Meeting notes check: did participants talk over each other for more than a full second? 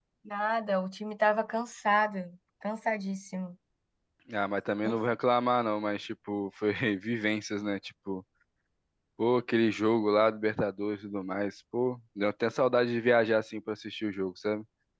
No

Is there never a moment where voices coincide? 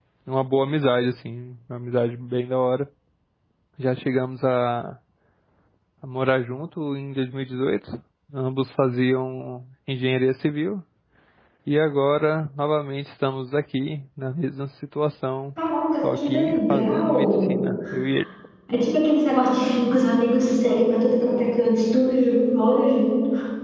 No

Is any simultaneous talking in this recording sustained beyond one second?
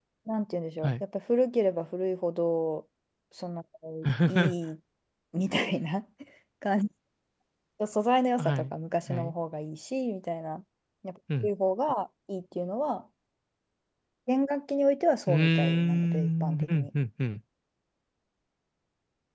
Yes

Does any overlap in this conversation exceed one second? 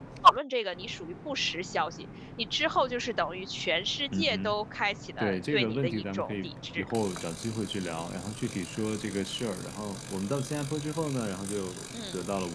Yes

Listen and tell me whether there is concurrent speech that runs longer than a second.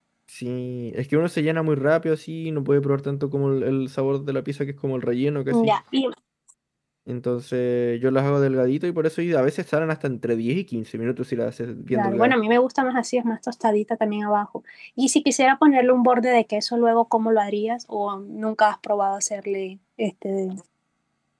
No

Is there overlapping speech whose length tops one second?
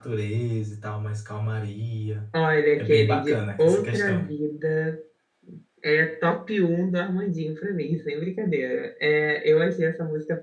Yes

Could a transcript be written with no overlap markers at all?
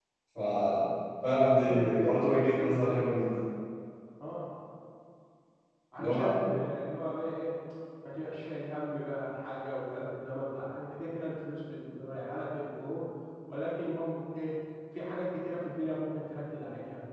No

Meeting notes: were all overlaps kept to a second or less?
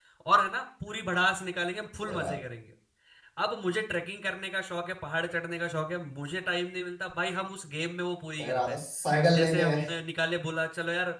Yes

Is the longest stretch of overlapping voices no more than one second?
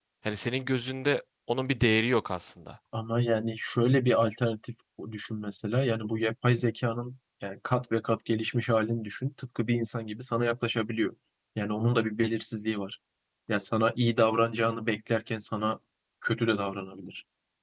Yes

